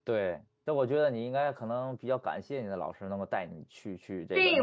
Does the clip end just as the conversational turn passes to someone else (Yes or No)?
Yes